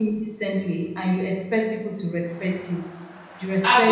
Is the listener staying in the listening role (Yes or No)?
Yes